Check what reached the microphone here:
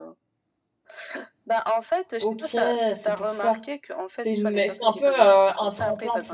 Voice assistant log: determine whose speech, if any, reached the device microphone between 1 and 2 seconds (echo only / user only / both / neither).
echo only